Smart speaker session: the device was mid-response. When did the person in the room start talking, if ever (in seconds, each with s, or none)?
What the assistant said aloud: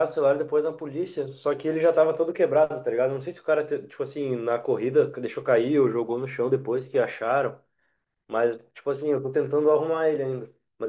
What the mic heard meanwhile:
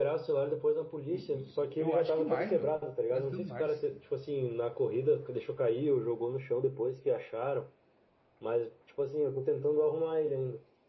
1.1 s